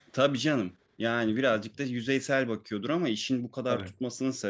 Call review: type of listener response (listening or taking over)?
listening